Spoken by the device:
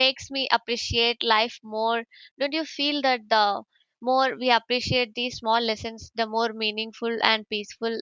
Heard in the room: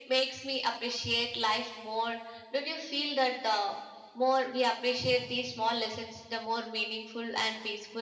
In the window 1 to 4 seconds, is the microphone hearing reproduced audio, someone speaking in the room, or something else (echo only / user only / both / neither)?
echo only